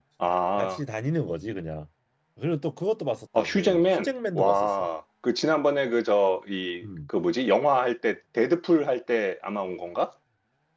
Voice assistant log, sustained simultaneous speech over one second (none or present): present